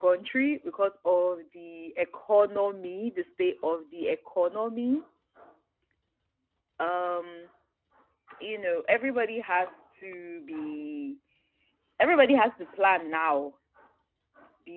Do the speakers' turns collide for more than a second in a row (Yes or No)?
No